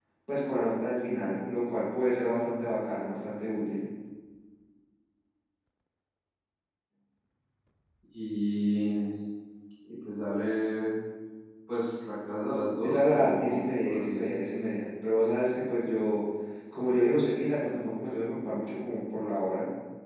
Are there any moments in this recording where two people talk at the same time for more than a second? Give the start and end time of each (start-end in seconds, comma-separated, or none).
12.8-14.2